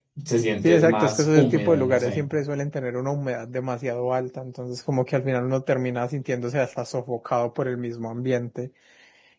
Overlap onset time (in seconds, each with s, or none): 0.6 s